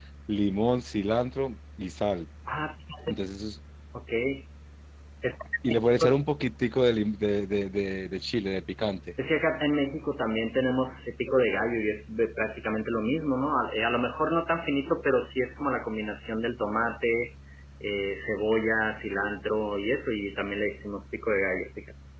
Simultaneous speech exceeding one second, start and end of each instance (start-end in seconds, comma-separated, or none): none